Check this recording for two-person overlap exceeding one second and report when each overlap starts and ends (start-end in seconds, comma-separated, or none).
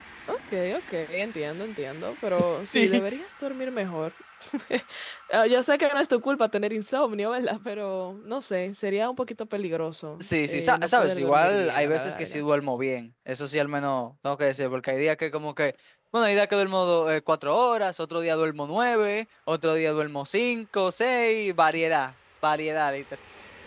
10.2-12.4